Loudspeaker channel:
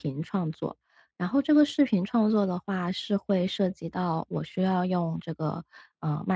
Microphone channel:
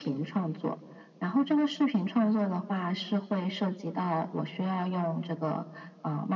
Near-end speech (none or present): none